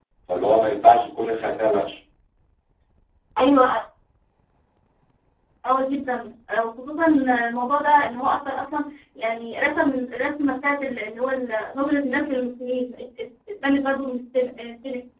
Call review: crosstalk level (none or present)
none